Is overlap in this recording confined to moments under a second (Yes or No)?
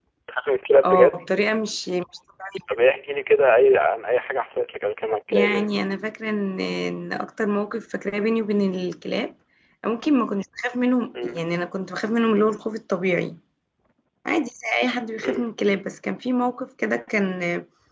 Yes